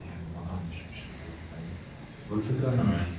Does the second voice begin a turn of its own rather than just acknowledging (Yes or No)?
No